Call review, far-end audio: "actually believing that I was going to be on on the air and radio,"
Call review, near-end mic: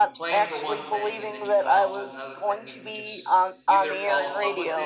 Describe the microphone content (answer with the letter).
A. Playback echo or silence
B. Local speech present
B